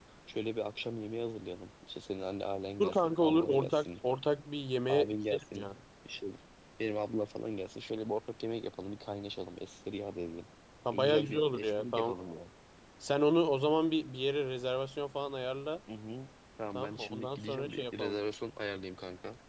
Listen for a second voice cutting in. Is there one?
Yes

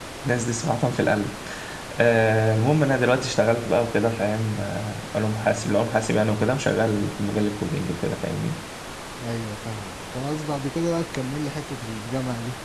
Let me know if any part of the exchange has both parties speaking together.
No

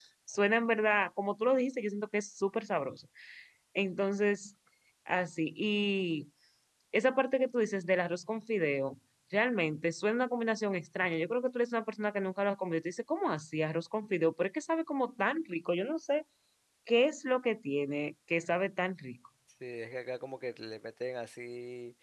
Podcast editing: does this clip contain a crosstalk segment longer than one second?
No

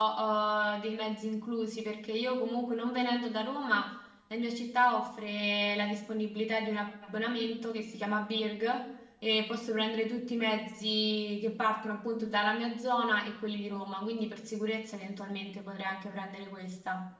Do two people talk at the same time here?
No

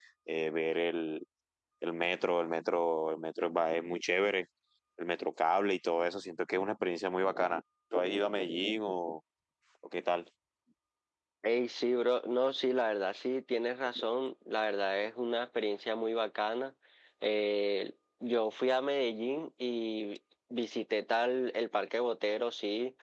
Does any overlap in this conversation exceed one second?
No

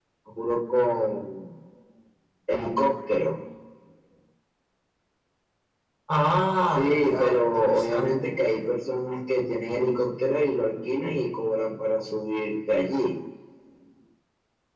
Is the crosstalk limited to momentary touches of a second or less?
No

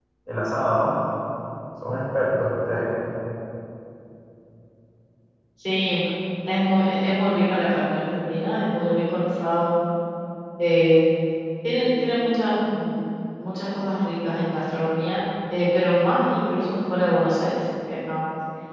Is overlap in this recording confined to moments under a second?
Yes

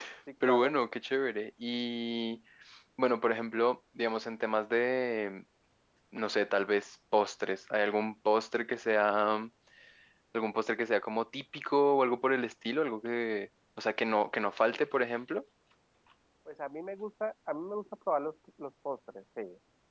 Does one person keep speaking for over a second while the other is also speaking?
No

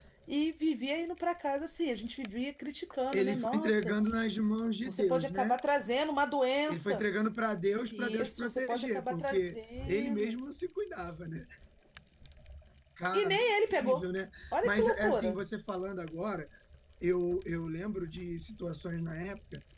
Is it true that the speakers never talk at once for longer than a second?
No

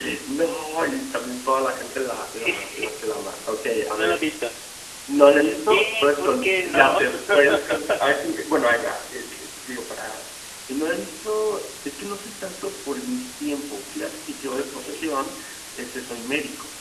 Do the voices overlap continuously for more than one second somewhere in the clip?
Yes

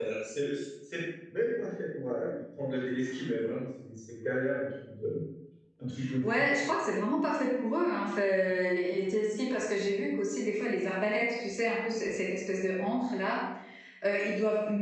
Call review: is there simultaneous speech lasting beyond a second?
No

